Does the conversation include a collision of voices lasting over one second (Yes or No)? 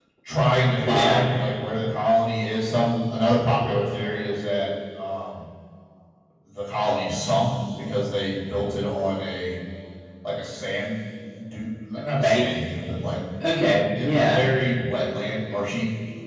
No